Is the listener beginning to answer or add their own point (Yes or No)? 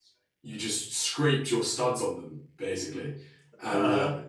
No